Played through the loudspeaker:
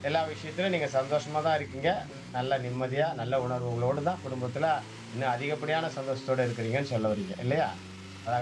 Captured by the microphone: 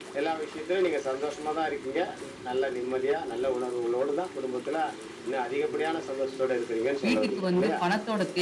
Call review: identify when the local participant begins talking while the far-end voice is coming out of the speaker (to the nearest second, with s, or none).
7 s